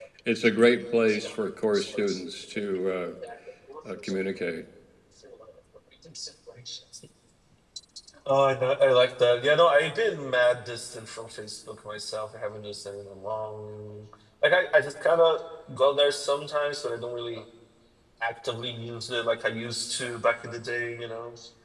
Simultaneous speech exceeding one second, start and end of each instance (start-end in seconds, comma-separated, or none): none